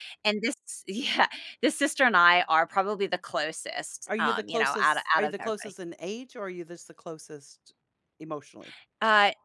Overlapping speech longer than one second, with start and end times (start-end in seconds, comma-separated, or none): 4.2-5.7